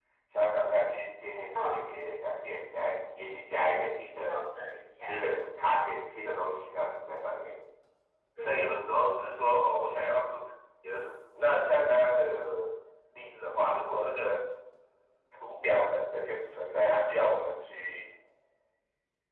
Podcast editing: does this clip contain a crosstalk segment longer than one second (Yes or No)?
No